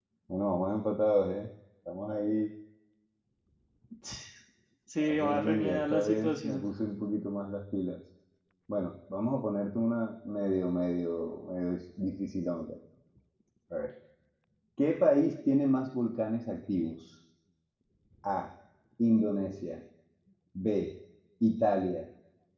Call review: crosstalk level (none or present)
present